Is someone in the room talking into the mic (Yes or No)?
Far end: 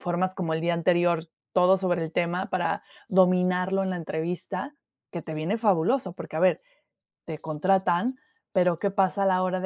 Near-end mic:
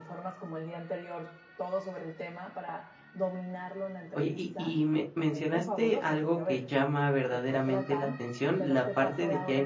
Yes